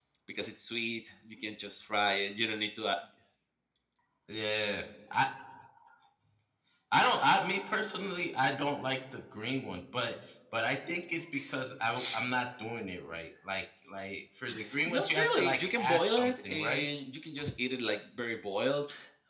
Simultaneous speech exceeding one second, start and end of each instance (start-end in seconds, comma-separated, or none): 14.9-16.9